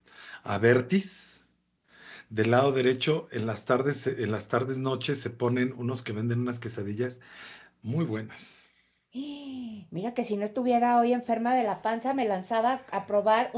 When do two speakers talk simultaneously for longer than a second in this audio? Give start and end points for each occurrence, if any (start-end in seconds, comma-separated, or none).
none